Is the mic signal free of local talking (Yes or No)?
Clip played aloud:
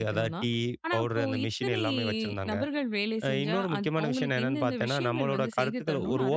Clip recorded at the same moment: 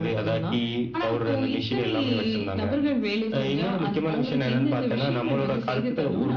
Yes